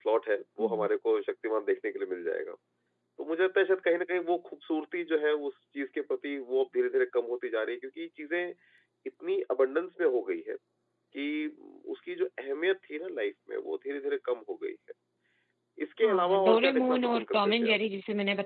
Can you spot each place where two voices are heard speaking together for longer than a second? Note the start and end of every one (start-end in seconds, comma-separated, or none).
16.0-17.8